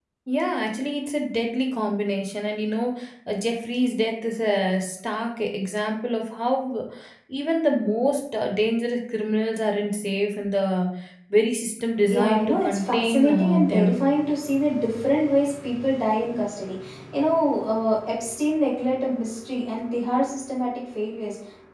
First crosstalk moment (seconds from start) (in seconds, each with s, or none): 12.1 s